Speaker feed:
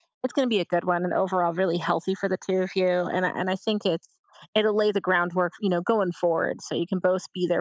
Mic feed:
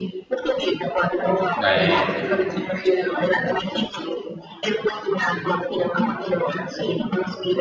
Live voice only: right,

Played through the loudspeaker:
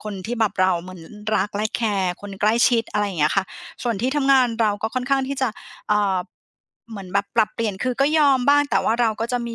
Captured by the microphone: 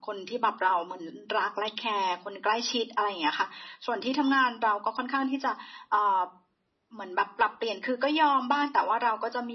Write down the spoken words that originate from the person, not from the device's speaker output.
none

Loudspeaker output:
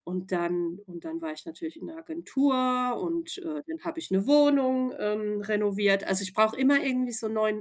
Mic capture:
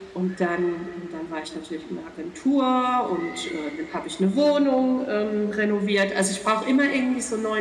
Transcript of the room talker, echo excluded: none

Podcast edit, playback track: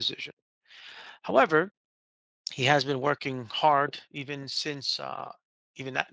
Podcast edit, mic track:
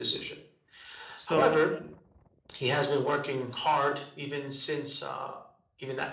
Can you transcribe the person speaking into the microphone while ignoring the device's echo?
So w-

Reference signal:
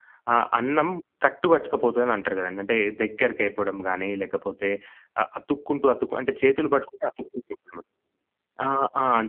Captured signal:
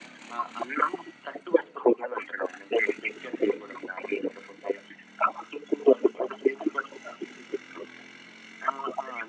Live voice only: none

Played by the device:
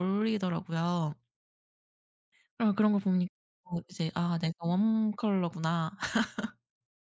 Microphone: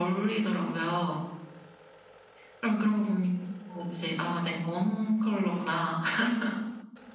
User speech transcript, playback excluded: none

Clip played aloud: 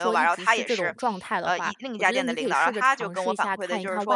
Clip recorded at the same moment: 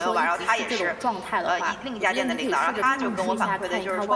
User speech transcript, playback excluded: 嗯嗯

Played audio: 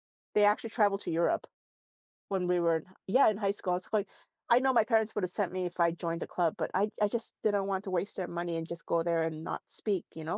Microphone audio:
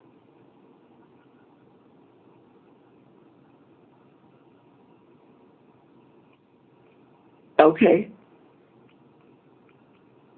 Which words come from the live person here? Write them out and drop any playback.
Okay.

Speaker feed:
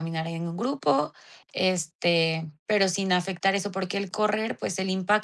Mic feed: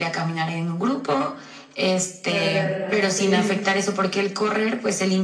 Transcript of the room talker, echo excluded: Perderla, sí.

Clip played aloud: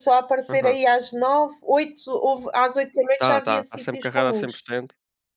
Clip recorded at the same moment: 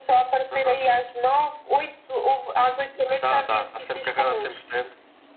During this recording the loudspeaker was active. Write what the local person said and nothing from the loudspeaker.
none

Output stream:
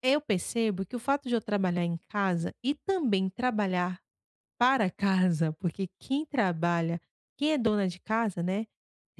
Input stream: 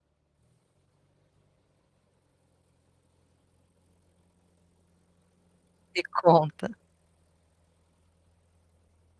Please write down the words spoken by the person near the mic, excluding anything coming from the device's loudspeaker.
Me conta.

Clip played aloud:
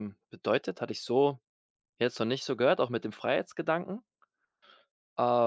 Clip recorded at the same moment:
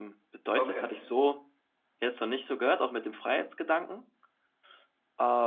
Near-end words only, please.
Okay.

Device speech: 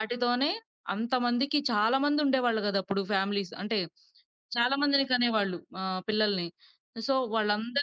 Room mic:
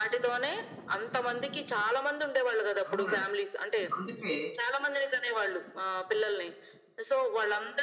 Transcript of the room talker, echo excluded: అవునండి. అందుకే

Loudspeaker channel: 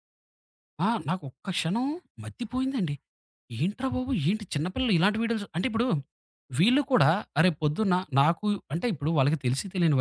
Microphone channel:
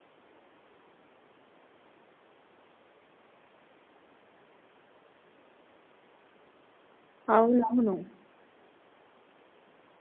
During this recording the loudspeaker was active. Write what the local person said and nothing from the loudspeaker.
అవునవును.

